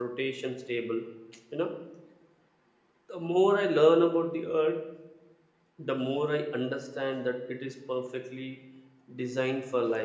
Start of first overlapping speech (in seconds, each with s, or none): none